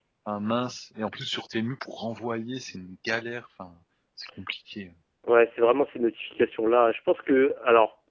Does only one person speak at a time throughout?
Yes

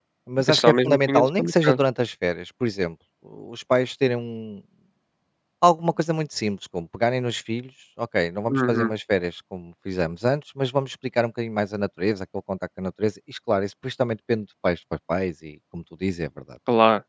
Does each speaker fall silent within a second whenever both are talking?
No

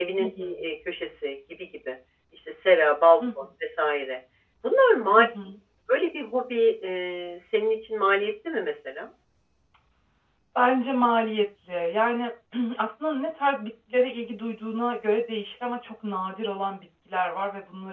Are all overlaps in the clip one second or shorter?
Yes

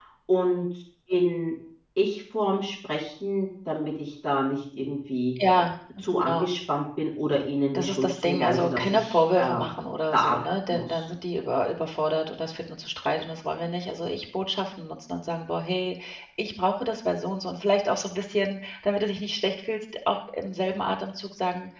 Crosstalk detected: Yes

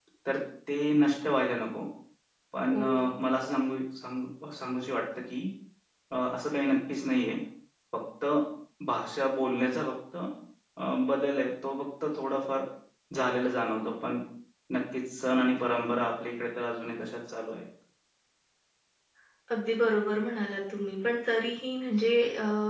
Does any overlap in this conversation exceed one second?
No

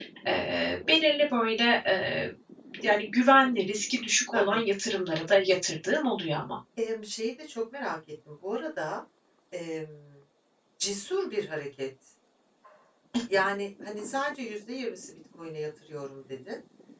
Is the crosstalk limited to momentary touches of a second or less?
Yes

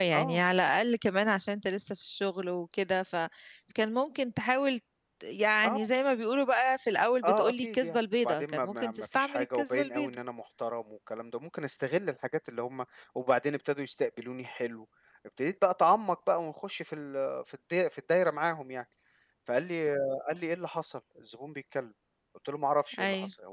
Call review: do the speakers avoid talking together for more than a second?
No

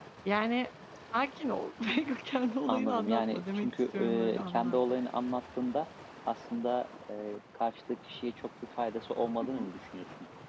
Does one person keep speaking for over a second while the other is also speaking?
Yes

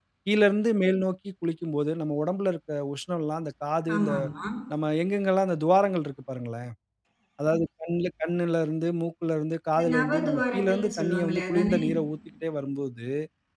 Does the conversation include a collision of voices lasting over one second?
Yes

